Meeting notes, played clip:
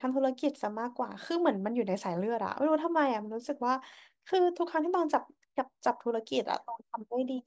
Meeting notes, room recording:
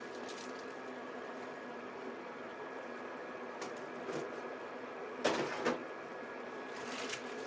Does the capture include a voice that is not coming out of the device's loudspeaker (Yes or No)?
No